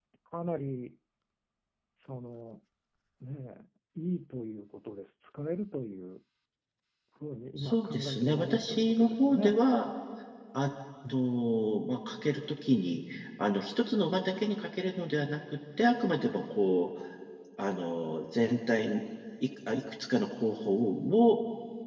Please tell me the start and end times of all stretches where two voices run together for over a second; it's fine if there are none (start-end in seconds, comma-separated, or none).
7.6-9.6